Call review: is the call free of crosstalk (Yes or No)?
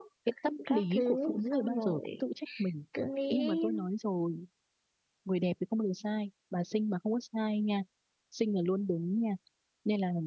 No